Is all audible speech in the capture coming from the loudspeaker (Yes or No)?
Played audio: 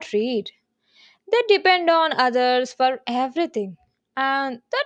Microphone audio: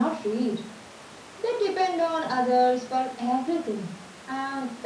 Yes